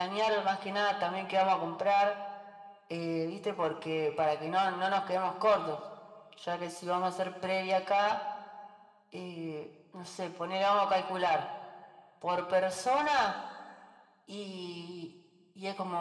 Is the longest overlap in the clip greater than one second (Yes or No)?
No